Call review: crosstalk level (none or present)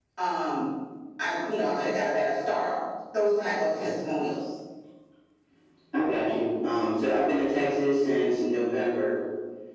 none